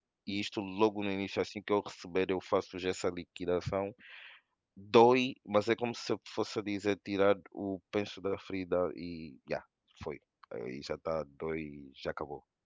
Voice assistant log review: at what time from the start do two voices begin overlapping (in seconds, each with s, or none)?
none